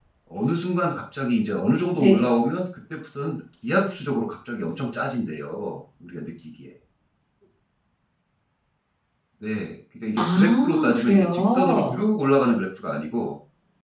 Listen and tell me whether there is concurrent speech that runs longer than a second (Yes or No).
Yes